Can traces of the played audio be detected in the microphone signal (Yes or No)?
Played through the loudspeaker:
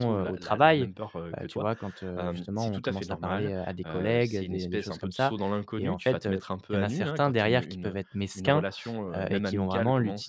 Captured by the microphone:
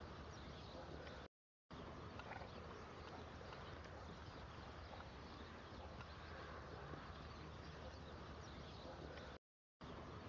No